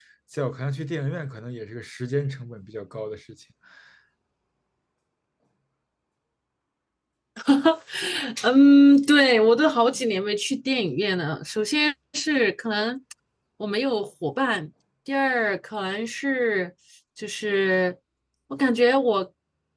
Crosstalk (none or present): none